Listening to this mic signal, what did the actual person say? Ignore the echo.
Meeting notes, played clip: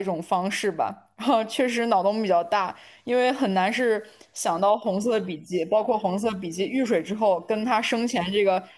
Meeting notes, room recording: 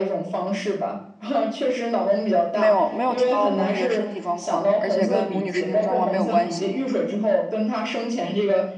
没有没有提到母女的身体状况，而且跟母女身体状况没有关系。

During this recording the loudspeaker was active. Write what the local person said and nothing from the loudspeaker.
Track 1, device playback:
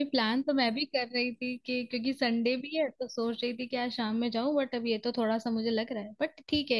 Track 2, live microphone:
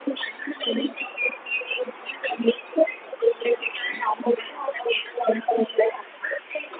none

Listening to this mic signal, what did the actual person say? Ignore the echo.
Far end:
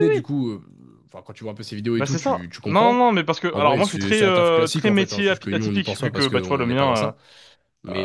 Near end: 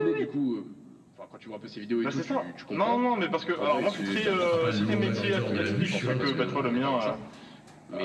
Ouais, Il sera pas le nouveau McGregor de la bûche, tu vois, mais... euh,

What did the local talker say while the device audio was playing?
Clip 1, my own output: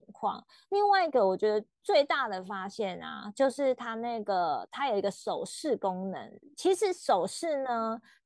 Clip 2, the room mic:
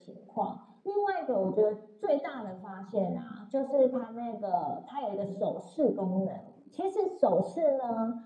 none

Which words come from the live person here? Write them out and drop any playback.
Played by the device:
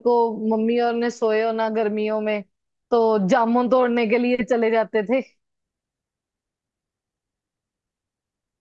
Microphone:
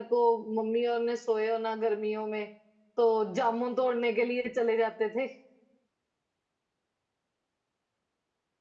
none

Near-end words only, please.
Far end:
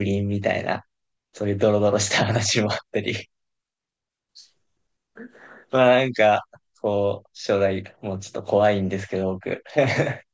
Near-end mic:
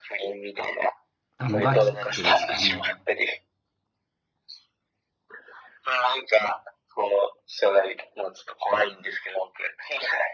たのがきっかけですかね。

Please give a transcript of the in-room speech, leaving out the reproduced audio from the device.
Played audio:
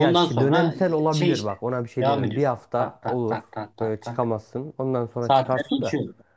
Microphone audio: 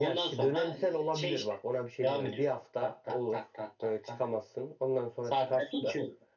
none

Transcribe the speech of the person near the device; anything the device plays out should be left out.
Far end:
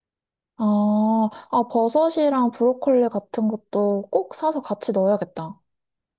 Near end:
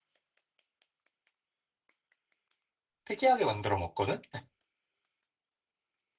특이하게 만들어 먹거든?

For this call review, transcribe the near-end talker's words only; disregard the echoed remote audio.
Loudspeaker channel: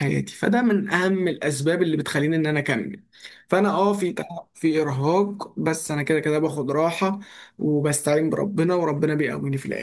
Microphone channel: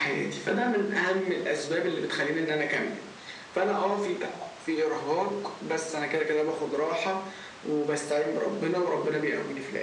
none

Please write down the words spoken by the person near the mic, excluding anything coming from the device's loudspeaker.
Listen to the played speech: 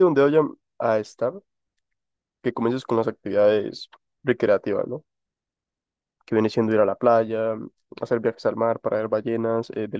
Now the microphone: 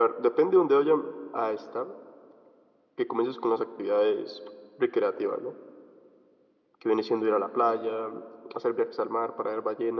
none

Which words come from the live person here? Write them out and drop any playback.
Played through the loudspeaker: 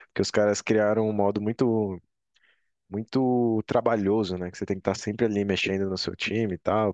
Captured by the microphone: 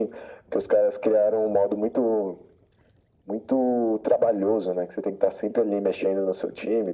none

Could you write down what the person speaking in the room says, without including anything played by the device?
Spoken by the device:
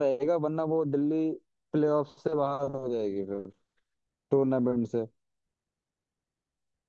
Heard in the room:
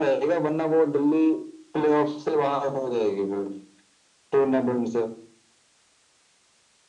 none

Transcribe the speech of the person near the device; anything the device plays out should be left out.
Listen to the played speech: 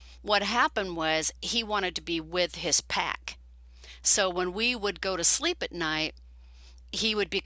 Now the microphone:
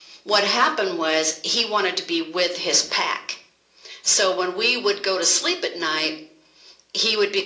none

